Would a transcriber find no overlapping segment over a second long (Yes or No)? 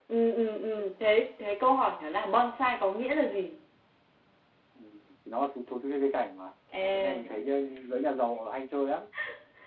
Yes